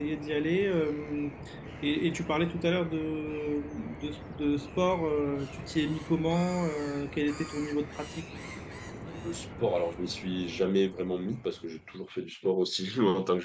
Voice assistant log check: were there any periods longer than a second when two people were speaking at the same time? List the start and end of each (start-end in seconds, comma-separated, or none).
none